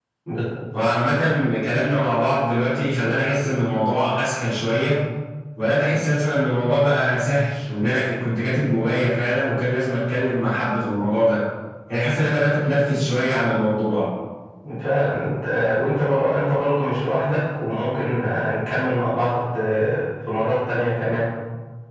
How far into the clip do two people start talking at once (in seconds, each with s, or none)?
none